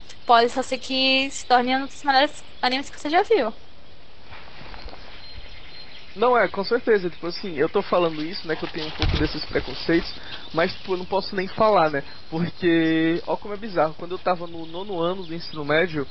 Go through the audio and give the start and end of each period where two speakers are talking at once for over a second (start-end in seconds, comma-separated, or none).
none